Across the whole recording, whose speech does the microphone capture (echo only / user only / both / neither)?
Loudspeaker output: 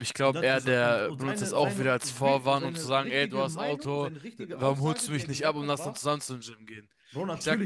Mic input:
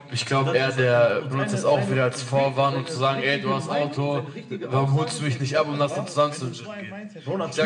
both